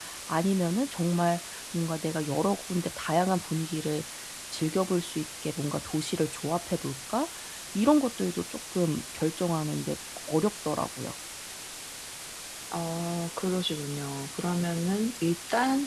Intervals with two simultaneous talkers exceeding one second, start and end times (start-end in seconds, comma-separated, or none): none